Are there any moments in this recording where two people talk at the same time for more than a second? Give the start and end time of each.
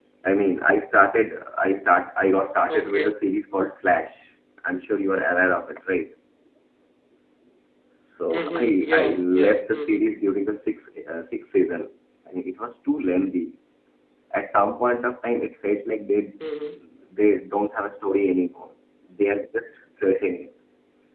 8.3-10.0

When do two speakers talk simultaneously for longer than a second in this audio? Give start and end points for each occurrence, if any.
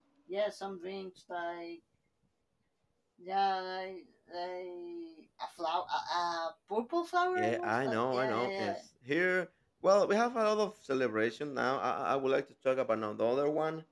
7.4-8.7

